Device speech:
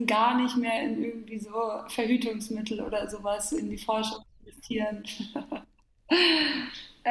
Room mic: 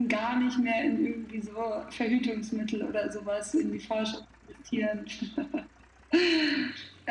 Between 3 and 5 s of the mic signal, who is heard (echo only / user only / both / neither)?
echo only